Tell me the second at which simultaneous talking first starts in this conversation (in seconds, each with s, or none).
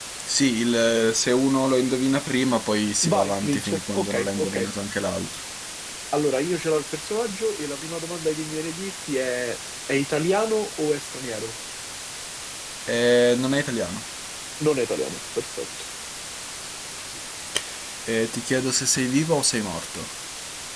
3.0 s